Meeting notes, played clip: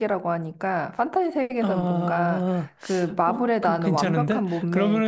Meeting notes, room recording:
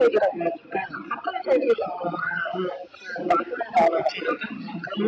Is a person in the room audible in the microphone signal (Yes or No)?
No